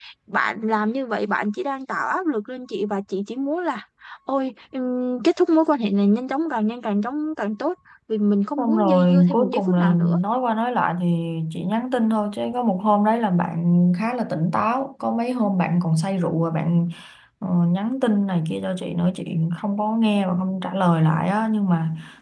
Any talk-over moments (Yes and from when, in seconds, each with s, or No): Yes, from 8.6 s